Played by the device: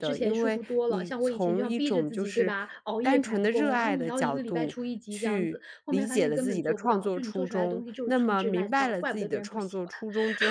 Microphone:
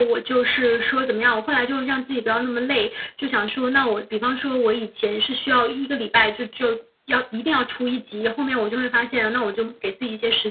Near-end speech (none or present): present